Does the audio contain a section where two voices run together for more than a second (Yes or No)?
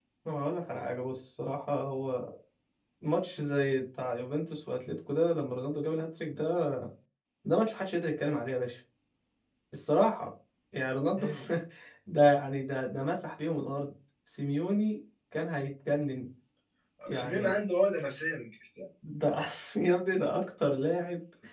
No